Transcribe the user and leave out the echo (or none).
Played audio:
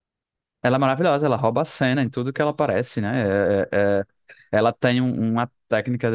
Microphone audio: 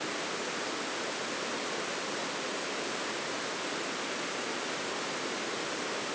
none